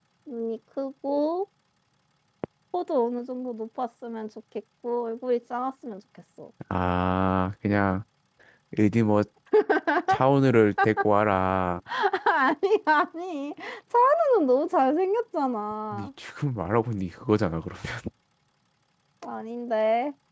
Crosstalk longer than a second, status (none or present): none